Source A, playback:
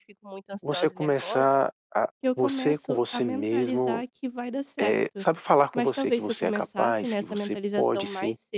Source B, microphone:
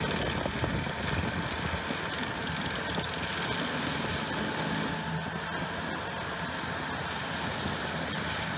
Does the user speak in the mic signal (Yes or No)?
No